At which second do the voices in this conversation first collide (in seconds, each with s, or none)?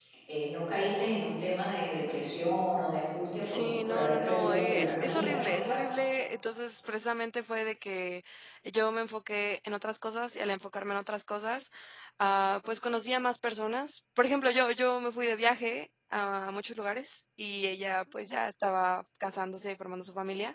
3.4 s